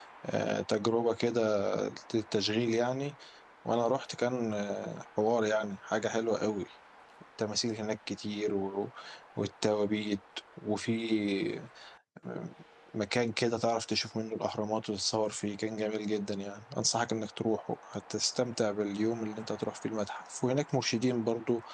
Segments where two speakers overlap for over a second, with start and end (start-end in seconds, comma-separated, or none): none